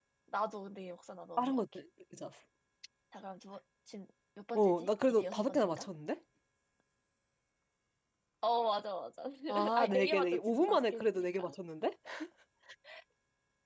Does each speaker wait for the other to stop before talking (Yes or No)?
No